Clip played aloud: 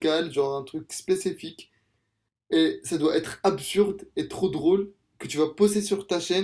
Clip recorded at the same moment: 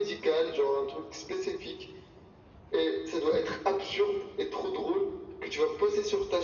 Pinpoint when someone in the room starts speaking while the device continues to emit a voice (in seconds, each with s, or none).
none